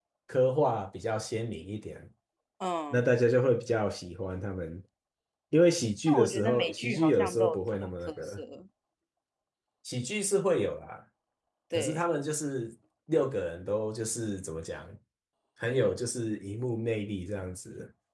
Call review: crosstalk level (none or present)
present